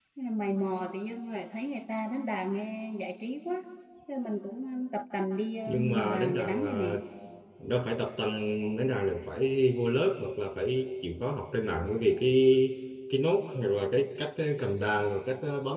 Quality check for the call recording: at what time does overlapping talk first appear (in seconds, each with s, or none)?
5.7 s